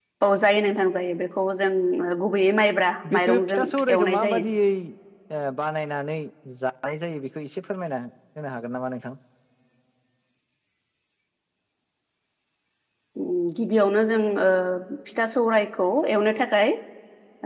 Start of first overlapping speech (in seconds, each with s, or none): 3.0 s